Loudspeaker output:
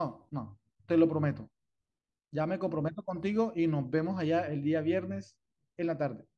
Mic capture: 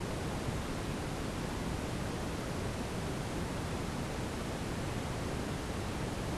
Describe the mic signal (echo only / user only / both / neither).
neither